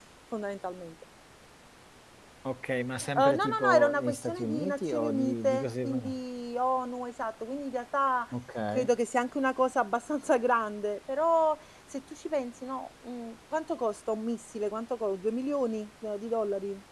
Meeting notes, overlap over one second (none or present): present